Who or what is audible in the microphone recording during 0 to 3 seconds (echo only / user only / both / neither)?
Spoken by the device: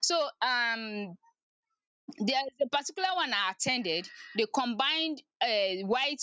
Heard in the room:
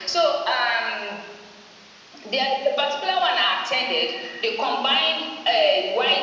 echo only